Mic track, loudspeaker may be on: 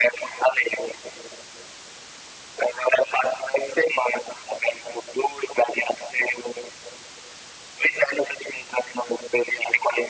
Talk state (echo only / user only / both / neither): echo only